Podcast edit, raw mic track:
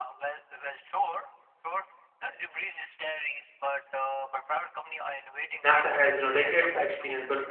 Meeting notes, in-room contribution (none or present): present